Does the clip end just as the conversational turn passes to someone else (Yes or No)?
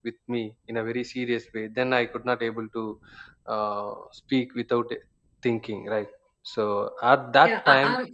Yes